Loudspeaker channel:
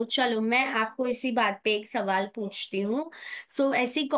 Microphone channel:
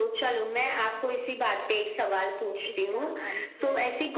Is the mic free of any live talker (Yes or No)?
No